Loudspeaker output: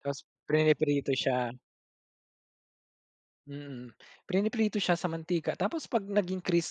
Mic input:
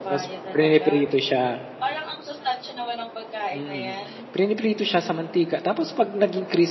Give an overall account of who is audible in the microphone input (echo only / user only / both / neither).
both